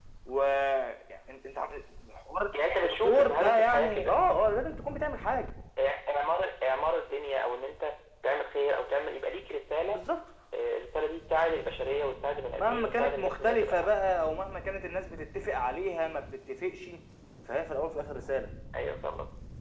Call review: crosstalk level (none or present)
present